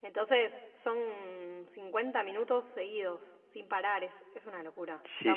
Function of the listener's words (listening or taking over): taking over